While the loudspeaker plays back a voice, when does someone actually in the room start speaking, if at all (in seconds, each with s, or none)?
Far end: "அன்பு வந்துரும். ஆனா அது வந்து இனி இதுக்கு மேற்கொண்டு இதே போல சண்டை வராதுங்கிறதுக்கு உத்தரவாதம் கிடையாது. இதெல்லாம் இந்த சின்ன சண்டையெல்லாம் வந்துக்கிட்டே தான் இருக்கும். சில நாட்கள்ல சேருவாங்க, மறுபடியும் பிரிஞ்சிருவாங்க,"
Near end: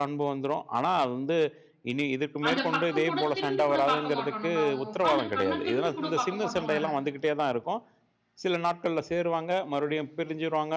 2.5 s